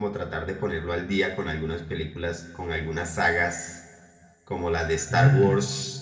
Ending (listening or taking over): listening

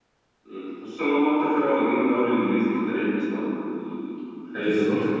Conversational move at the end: listening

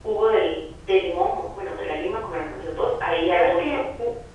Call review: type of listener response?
taking over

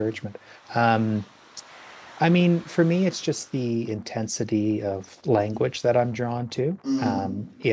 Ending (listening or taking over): listening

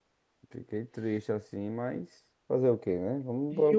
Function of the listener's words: taking over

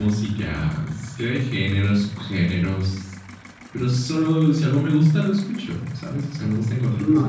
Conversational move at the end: taking over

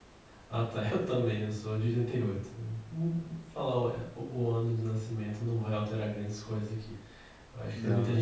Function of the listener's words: listening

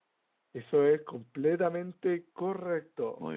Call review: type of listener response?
listening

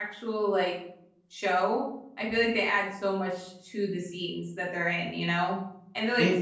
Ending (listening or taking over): taking over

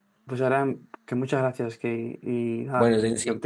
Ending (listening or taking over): taking over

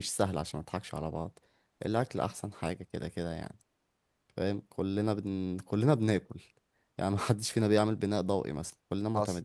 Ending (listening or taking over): listening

